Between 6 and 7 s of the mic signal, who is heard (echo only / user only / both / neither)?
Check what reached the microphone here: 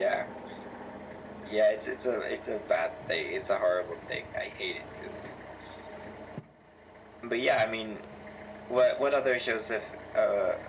neither